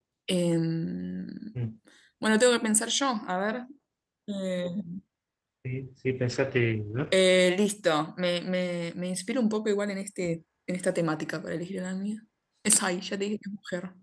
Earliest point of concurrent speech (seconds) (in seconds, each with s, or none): none